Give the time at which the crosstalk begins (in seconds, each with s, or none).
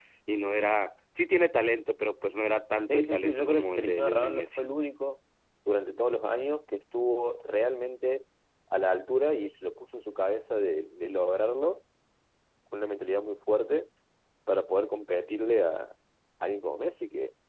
2.9 s